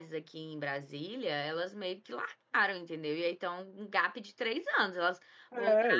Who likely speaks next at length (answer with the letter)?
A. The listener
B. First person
A